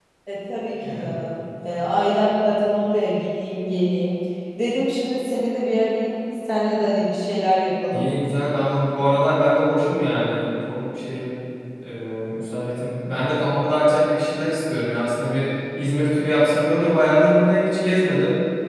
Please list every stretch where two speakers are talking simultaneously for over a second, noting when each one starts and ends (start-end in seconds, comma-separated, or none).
none